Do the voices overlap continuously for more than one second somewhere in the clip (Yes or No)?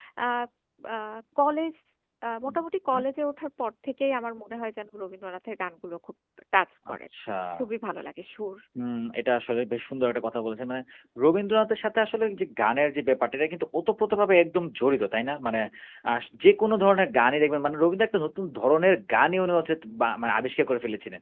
No